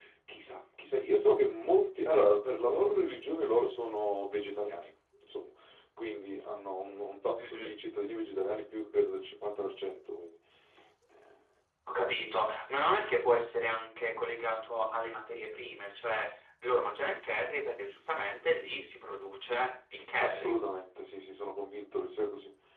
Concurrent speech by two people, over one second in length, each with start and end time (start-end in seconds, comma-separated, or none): none